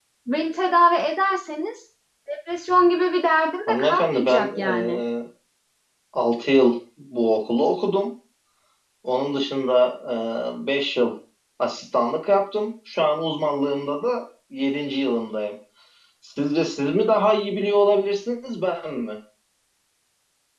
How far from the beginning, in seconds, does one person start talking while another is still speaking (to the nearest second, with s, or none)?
4 s